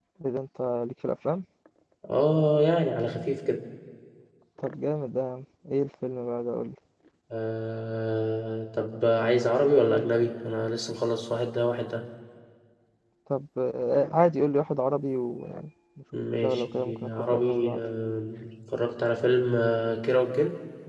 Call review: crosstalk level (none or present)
present